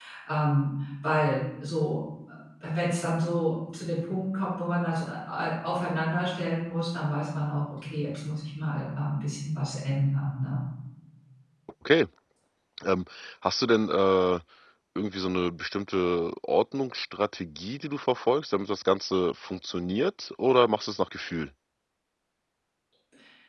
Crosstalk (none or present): none